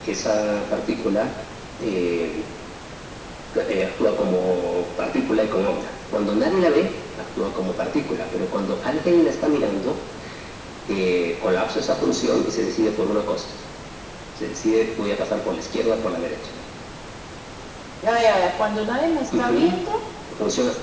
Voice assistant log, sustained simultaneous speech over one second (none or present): none